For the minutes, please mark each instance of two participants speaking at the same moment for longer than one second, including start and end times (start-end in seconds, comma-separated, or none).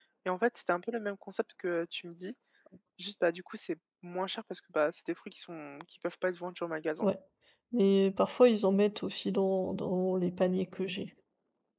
none